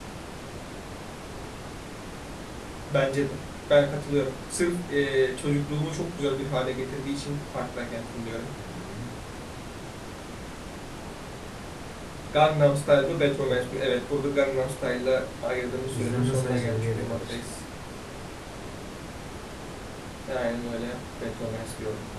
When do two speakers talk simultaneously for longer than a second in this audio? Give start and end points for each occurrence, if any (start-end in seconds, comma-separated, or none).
15.7-17.4